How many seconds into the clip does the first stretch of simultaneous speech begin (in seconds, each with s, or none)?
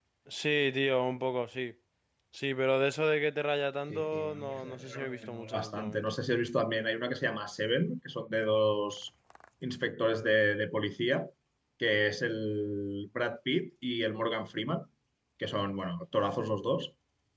3.9 s